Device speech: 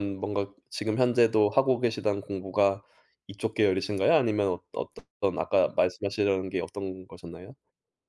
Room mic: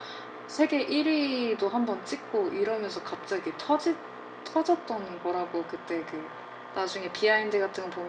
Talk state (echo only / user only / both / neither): user only